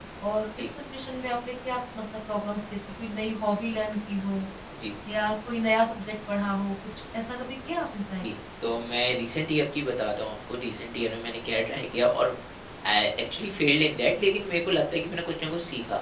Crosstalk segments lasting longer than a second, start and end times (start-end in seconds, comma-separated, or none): none